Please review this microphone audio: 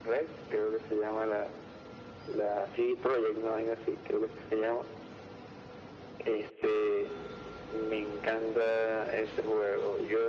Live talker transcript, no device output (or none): none